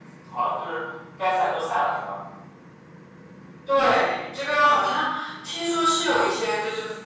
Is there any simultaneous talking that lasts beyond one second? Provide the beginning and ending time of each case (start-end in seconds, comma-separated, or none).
none